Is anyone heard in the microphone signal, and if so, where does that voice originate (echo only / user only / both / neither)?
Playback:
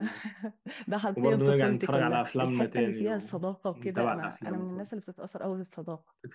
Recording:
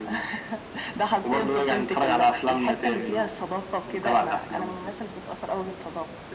echo only